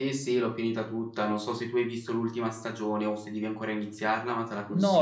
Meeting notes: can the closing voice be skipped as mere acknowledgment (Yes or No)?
No